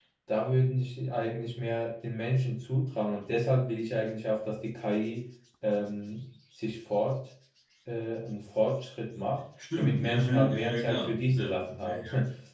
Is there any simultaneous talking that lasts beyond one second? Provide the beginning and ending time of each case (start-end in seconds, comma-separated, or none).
9.8-12.0